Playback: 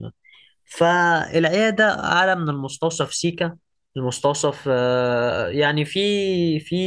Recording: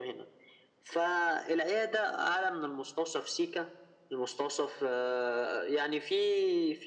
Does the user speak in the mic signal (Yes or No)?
No